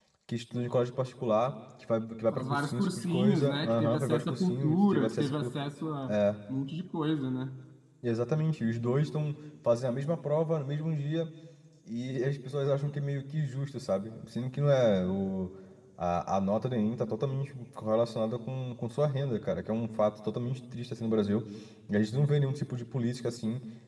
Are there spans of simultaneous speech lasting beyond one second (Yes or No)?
Yes